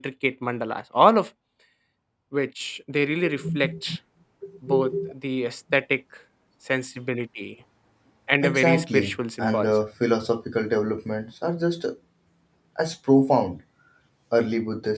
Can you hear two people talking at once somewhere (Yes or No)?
Yes